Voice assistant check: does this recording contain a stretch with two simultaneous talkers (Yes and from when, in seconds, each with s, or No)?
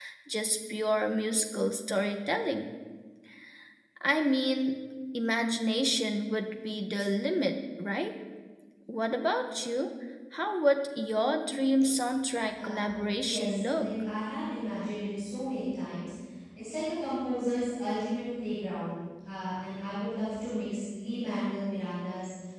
Yes, from 12.6 s